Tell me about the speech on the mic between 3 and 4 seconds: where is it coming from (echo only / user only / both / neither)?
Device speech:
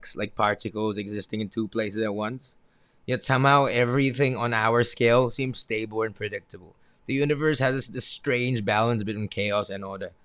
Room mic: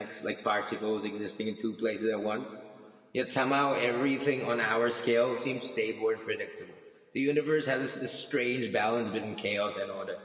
echo only